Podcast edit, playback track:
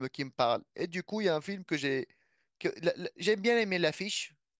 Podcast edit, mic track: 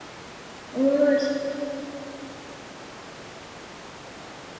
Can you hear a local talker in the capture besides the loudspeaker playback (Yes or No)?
Yes